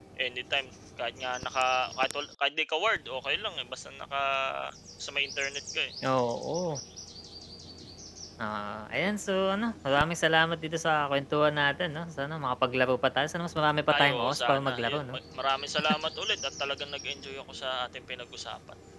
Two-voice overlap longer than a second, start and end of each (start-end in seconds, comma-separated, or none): 13.9-15.2